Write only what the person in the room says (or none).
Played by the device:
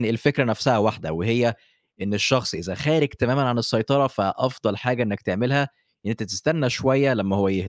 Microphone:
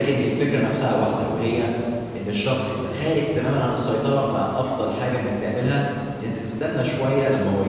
none